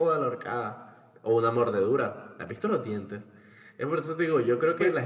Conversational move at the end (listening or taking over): taking over